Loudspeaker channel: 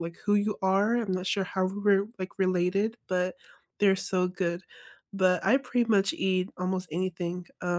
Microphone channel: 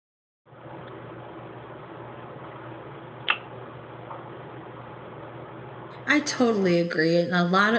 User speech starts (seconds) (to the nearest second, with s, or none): 6 s